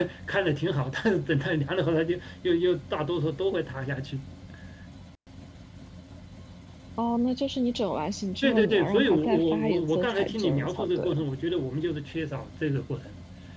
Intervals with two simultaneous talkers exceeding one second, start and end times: 8.4-11.1

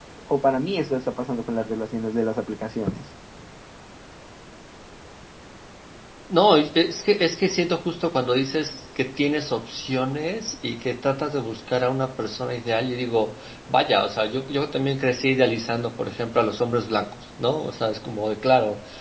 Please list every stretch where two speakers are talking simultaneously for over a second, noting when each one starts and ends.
none

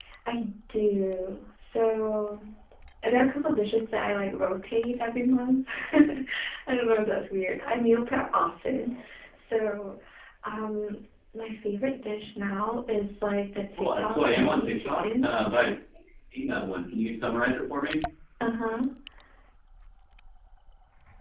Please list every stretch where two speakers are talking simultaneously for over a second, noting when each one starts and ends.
13.8-15.3

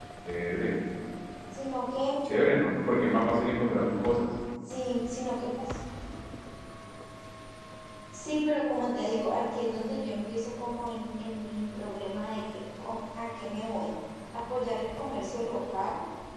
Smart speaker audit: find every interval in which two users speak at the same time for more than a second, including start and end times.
none

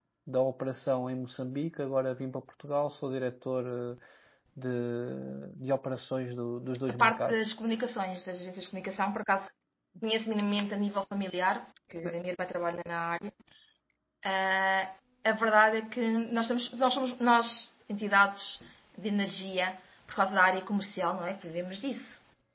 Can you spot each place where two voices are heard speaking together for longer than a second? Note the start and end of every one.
none

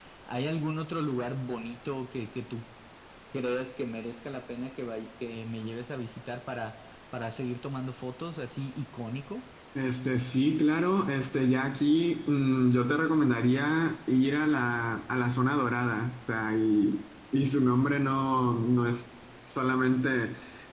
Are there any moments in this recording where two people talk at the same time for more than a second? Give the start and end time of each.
none

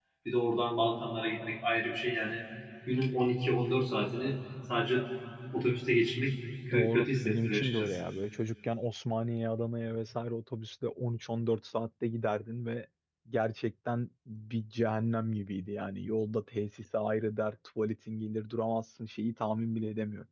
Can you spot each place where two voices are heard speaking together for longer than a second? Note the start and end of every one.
6.7-7.9

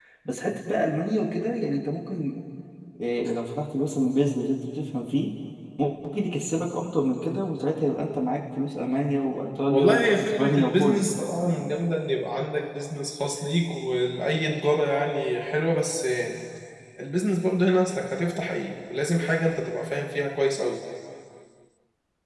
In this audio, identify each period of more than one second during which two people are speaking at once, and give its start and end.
9.7-11.1

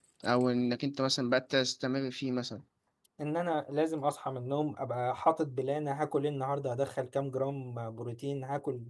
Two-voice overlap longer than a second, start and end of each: none

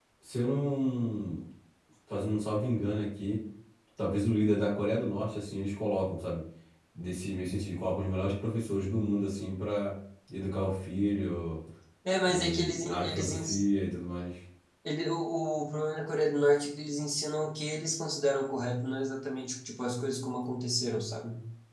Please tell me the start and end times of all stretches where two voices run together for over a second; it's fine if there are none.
12.3-13.6

